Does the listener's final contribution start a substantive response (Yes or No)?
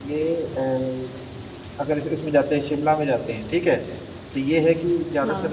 No